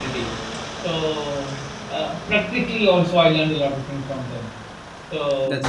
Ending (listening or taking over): listening